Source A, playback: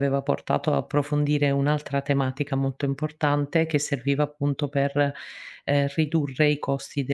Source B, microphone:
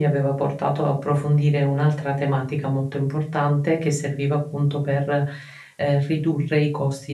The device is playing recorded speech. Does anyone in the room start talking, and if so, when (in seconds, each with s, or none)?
none